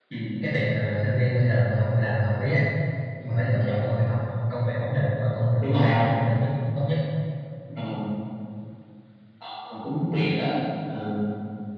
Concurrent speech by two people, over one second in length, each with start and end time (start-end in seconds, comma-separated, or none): none